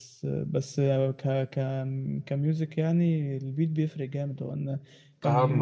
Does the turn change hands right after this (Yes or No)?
No